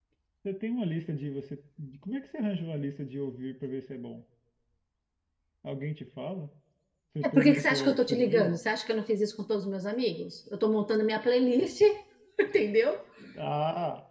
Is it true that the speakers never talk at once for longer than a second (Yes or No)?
No